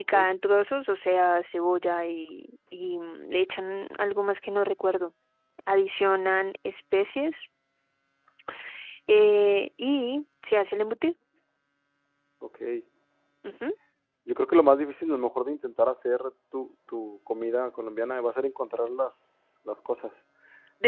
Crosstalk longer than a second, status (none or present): none